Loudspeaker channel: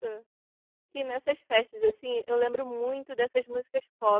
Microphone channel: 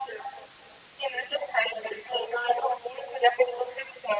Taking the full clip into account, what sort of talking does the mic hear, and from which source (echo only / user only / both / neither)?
echo only